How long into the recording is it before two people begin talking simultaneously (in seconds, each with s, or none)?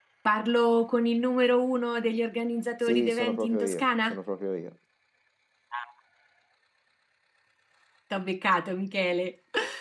2.8 s